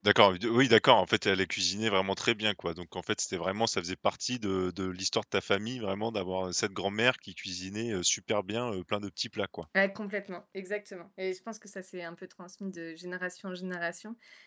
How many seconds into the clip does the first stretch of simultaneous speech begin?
none

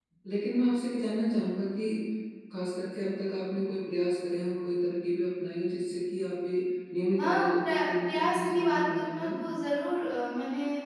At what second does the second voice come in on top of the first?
7.2 s

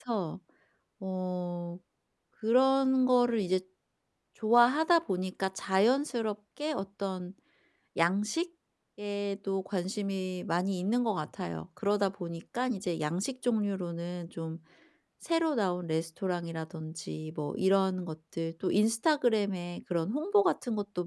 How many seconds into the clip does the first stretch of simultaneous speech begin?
none

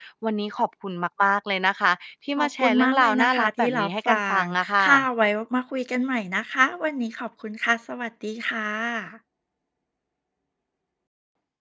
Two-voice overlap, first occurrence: 2.4 s

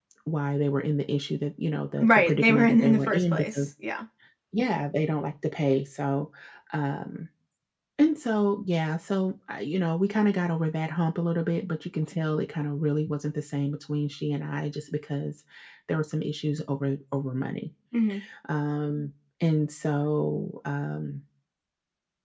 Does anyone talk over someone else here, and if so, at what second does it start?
2.0 s

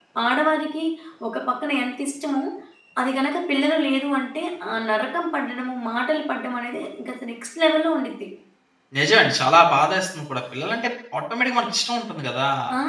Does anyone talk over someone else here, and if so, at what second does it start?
none

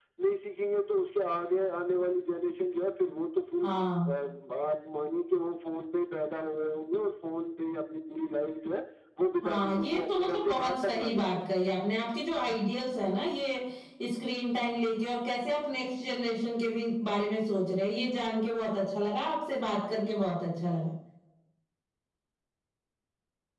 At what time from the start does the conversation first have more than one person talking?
9.4 s

